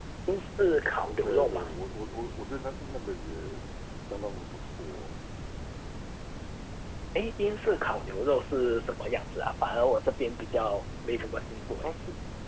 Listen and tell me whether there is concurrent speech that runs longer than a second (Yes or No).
No